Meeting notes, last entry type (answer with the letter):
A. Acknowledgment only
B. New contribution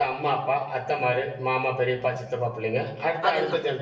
A